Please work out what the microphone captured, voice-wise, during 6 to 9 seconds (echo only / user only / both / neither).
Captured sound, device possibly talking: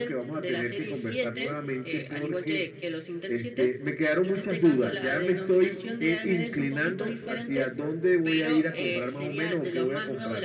echo only